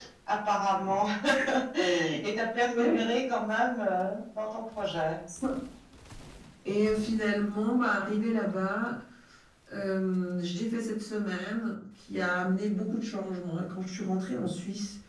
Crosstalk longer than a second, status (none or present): none